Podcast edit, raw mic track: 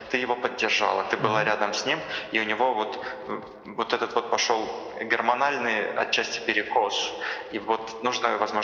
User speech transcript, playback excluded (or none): Мгм,